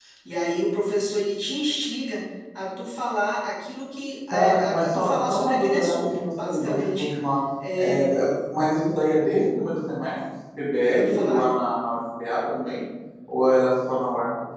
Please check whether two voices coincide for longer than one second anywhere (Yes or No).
Yes